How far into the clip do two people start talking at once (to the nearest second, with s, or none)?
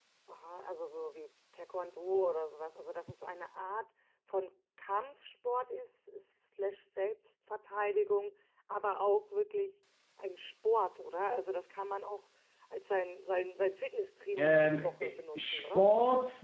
14 s